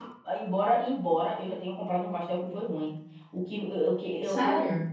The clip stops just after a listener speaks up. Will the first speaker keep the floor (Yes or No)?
Yes